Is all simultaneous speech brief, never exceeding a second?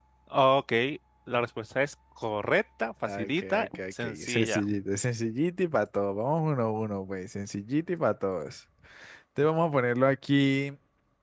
No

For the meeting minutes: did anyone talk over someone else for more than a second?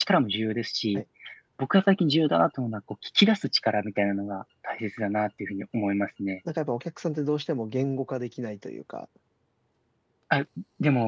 No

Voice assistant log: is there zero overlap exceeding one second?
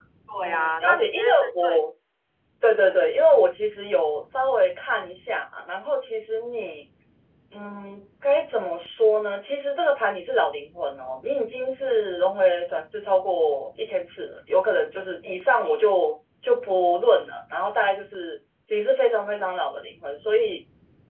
No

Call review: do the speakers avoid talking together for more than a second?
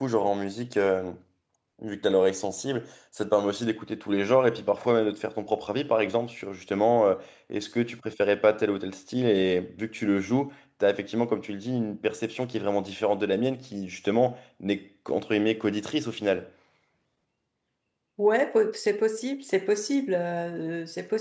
Yes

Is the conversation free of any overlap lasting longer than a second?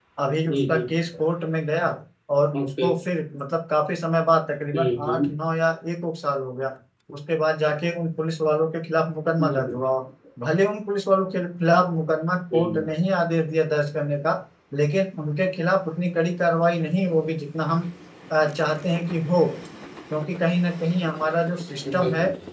Yes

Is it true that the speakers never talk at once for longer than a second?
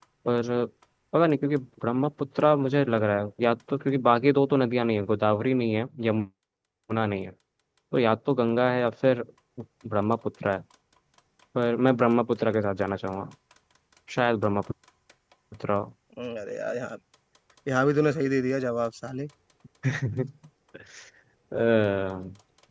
Yes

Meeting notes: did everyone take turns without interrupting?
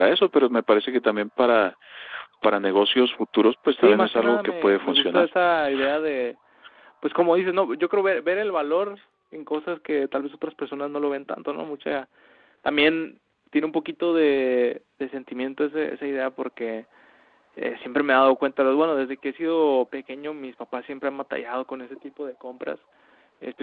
No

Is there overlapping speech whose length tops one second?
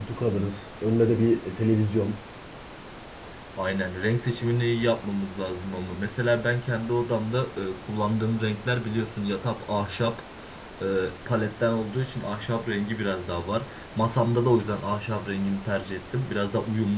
No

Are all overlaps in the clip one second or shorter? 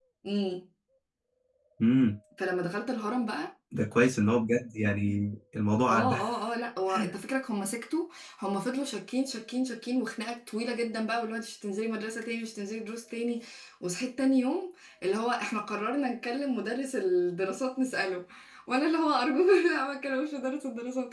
Yes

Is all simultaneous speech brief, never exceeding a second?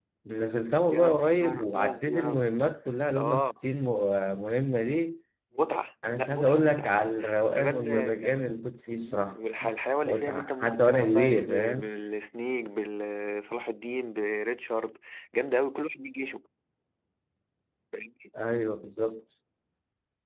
No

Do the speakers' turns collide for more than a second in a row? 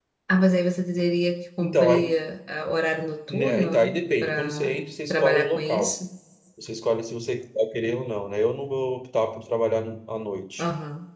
Yes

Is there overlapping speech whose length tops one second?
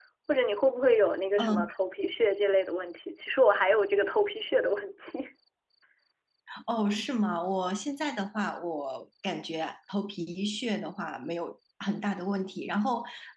No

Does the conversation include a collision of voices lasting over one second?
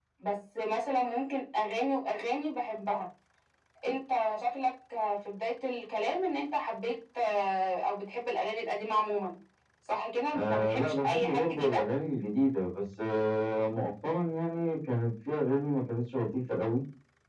Yes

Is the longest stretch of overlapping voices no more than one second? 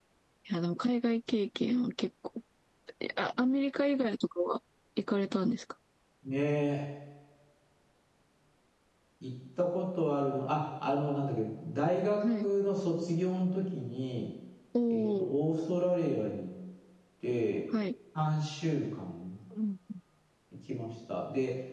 Yes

